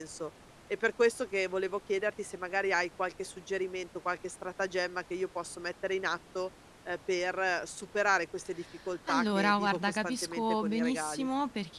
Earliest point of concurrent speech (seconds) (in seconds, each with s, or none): 9.1 s